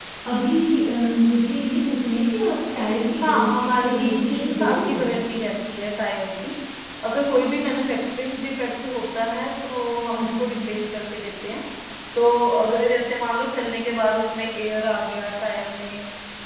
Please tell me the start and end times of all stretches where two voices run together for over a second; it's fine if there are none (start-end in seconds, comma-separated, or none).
3.2-5.0